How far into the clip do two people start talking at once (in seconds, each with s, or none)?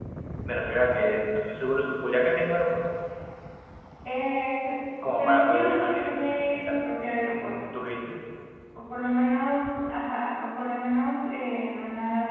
5.0 s